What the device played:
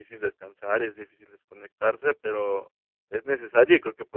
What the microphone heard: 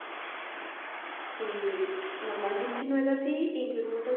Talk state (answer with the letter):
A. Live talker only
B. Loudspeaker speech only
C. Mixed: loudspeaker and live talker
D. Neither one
A